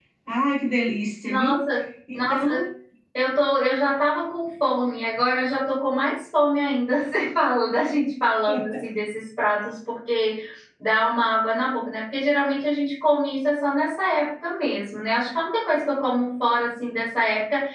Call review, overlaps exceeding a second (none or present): none